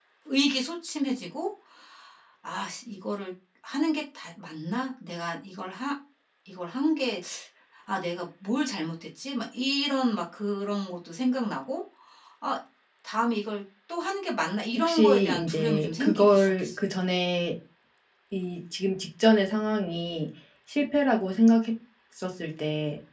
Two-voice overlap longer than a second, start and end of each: 14.8-16.7

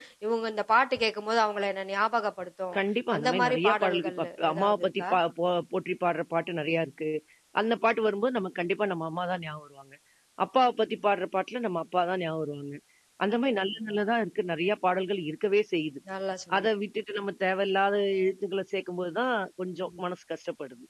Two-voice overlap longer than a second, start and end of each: 3.2-5.1

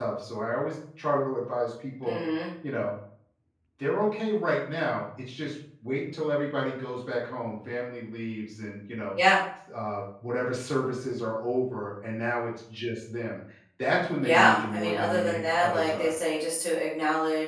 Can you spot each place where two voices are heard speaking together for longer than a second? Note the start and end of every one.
14.2-16.1

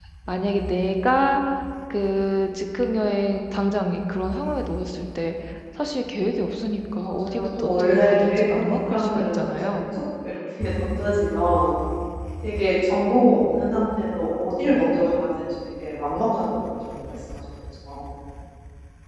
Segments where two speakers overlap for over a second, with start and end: 7.0-9.8

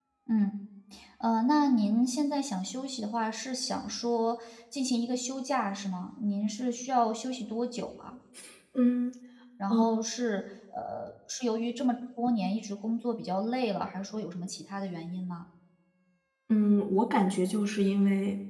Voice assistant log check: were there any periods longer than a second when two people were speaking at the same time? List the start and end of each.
none

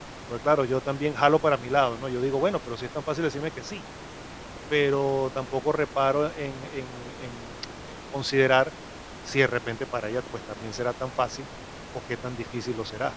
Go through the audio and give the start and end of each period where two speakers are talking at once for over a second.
none

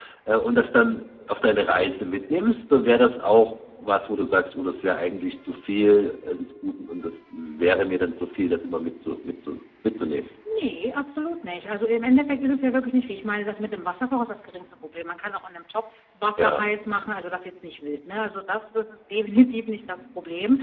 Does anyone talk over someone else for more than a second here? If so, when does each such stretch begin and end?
none

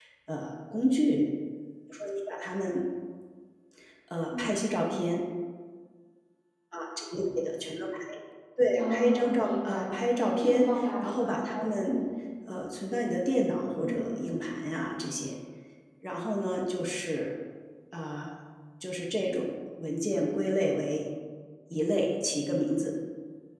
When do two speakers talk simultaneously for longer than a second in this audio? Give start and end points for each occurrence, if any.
8.8-12.0

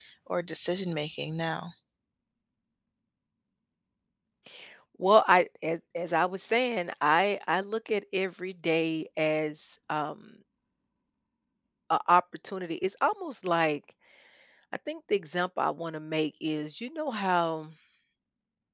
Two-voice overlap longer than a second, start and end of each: none

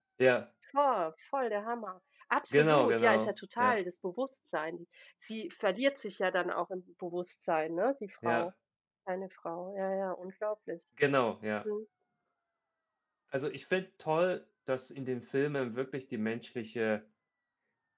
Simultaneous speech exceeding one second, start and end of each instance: 2.5-3.8

